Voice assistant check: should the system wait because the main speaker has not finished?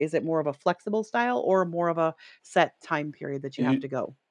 No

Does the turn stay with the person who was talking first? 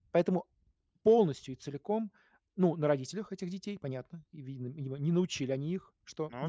Yes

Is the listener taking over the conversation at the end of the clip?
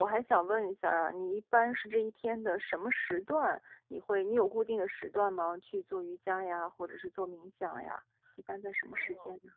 Yes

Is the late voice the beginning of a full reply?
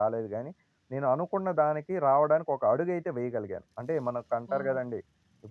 No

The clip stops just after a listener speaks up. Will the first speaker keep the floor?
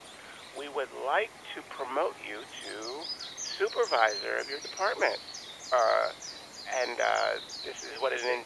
Yes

